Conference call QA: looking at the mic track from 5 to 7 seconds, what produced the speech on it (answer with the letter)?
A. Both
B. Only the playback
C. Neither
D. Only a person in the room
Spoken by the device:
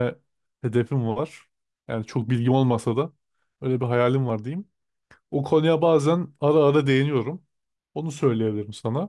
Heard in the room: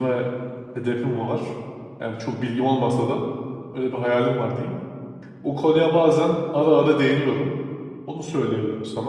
B